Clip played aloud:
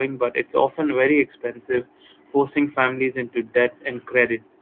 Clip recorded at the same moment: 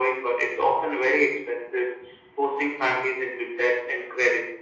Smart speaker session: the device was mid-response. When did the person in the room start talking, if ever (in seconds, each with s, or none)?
none